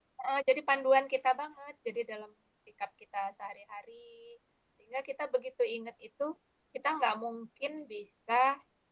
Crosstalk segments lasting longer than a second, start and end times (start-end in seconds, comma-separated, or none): none